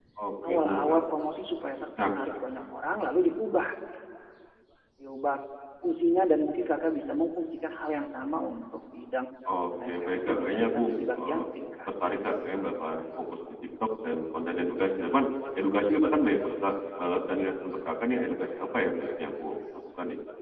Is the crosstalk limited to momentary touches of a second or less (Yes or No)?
No